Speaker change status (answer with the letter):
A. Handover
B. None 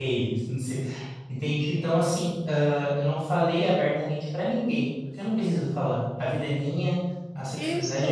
B